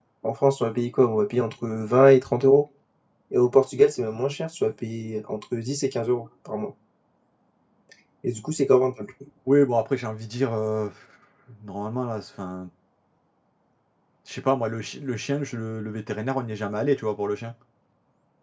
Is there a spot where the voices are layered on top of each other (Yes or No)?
No